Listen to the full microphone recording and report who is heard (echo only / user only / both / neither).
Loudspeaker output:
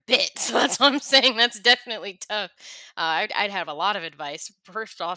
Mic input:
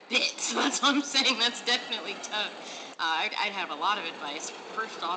echo only